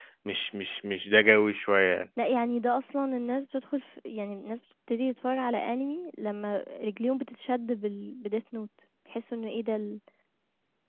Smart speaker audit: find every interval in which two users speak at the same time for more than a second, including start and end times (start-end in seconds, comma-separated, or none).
none